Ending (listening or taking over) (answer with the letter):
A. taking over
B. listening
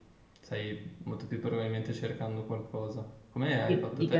A